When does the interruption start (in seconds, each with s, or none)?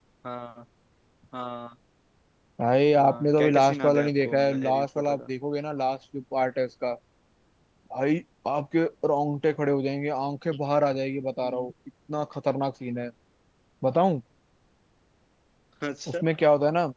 3.0 s